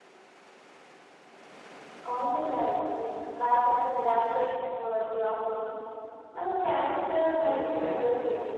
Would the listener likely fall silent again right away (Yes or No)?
No